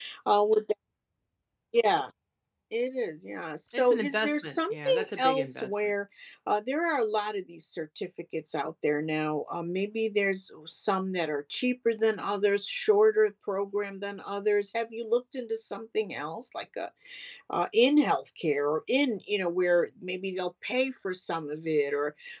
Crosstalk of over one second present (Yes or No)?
Yes